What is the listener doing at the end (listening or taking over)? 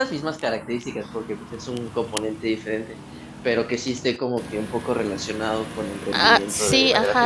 taking over